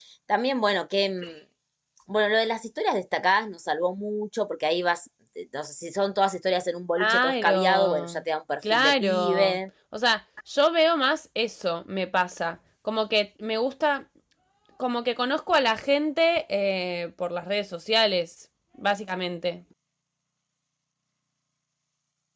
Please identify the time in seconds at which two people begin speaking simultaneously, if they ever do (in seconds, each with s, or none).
6.9 s